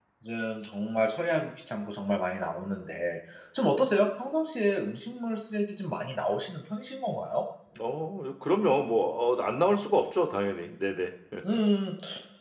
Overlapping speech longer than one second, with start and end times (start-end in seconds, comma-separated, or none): none